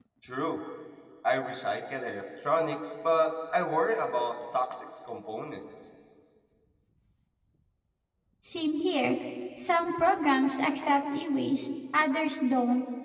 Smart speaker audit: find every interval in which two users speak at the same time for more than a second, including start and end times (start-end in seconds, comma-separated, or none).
none